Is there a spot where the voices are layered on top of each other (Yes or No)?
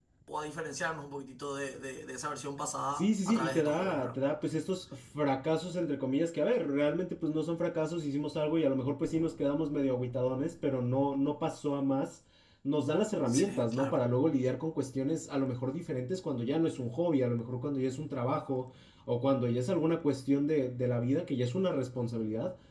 Yes